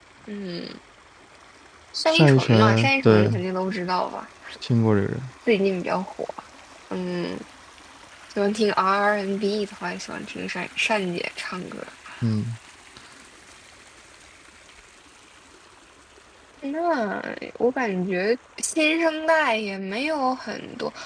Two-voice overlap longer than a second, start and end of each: 2.2-3.4

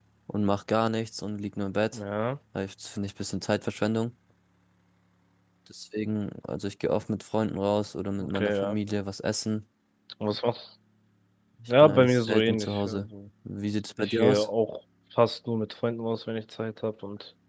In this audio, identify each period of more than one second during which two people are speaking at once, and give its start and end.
11.8-13.1

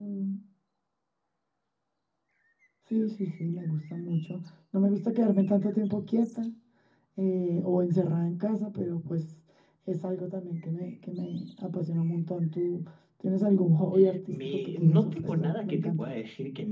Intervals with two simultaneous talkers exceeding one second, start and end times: 14.3-16.1

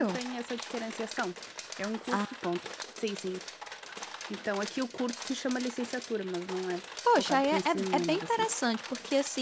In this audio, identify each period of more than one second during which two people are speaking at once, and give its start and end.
7.1-8.4

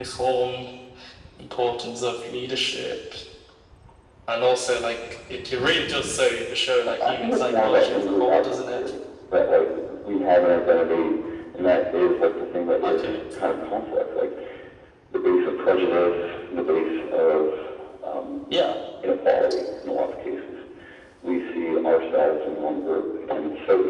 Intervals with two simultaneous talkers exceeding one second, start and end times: 6.8-8.8

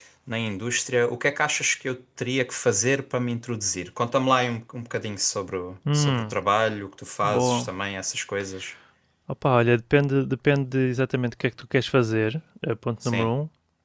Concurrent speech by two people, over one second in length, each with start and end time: none

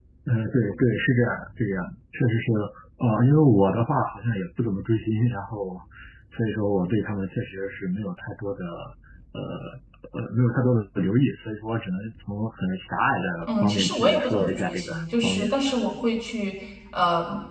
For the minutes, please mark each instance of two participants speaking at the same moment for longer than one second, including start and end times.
13.4-15.5

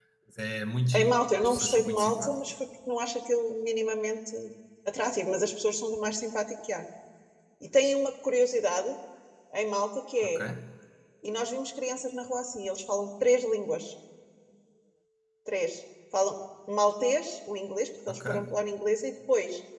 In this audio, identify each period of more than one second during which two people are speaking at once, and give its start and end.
0.9-2.4

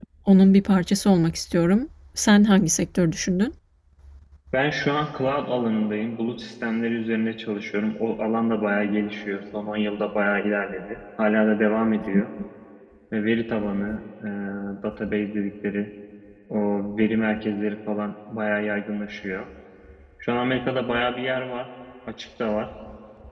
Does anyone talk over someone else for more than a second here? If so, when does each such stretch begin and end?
none

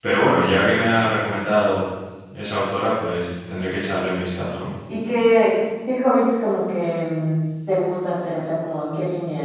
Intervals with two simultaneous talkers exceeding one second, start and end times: none

